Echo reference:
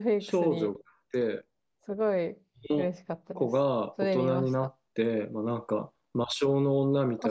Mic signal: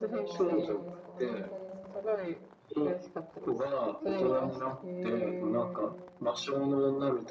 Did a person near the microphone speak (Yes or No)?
Yes